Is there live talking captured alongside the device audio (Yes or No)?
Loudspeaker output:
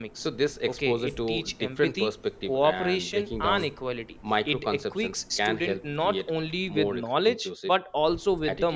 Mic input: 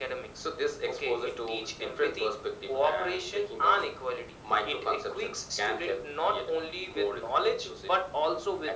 No